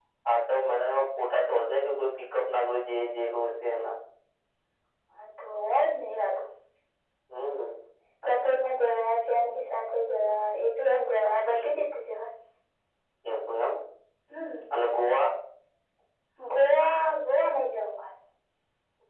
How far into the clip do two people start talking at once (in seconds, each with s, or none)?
none